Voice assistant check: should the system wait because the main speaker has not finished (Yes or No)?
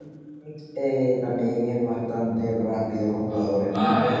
No